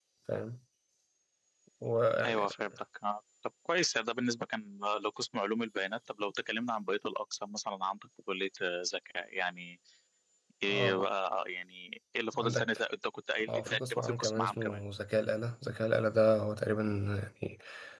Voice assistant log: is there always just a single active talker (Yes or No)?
No